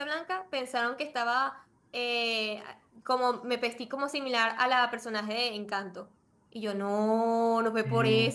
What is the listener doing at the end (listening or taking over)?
listening